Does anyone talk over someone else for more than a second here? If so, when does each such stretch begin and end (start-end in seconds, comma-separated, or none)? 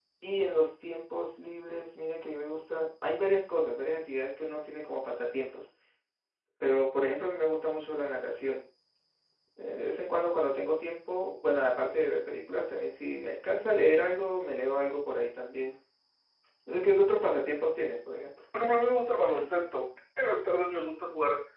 none